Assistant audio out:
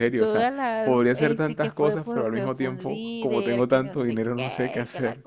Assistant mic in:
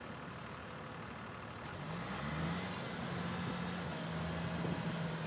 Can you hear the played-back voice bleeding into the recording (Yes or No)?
No